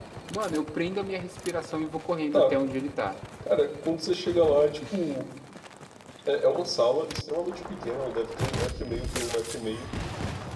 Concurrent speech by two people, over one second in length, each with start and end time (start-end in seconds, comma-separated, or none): none